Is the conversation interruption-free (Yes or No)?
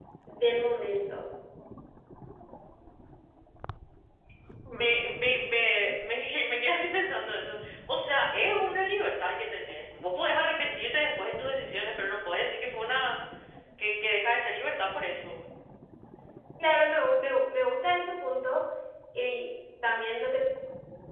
Yes